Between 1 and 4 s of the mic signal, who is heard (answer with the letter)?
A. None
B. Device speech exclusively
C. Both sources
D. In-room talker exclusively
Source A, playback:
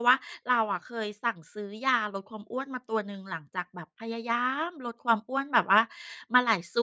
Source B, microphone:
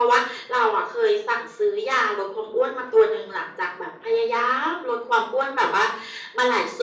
B